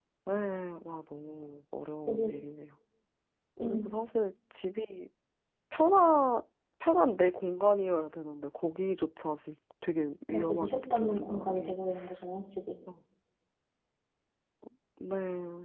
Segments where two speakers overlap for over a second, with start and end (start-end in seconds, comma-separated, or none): 10.3-11.7